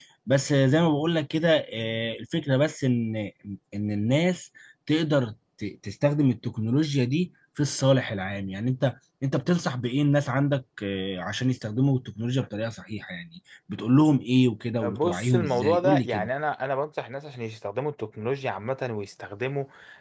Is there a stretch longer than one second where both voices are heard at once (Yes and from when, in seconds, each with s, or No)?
Yes, from 14.8 s